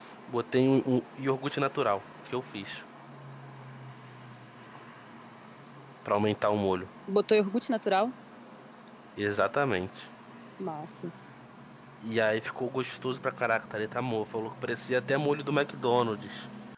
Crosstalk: none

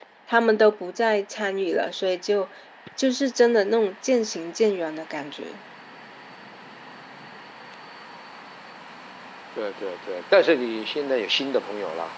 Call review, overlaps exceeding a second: none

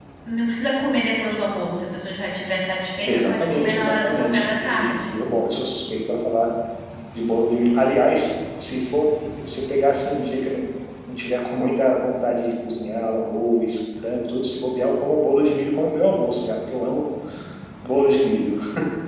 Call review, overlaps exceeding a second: present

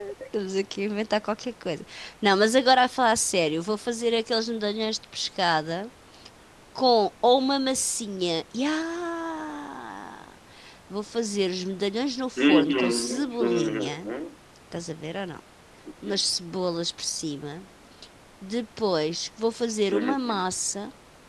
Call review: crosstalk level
present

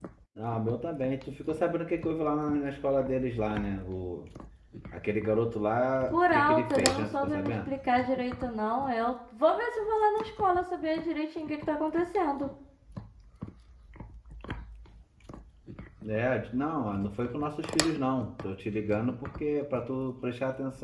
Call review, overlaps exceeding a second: present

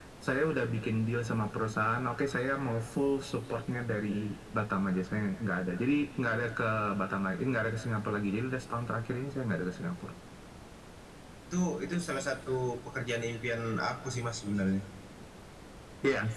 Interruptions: none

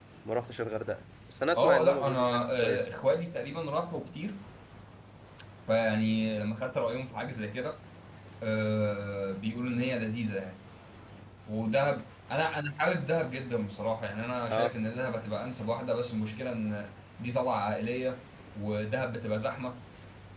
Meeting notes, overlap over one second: present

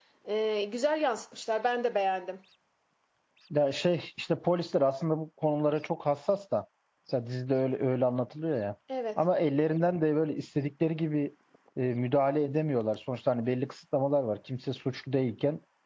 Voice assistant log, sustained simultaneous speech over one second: none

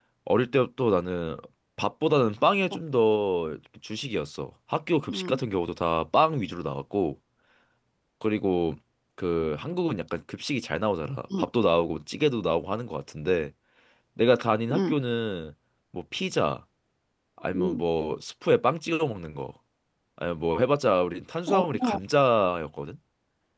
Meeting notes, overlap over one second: none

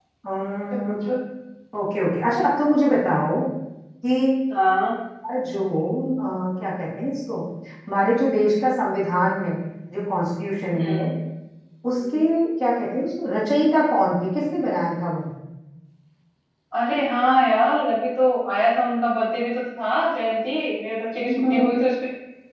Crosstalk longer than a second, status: none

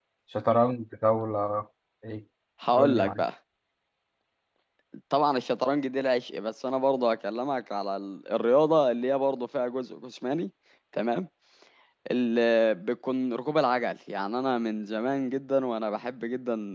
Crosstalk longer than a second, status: none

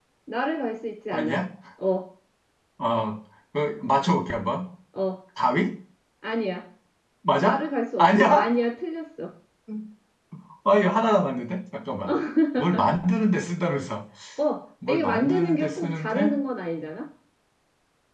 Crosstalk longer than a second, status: present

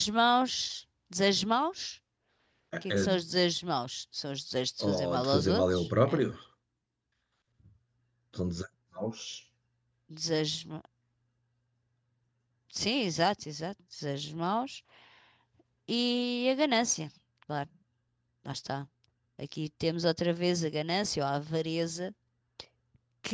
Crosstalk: present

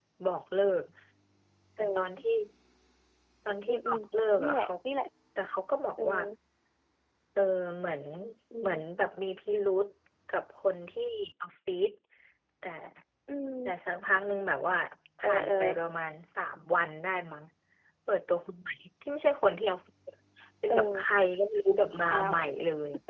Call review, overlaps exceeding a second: none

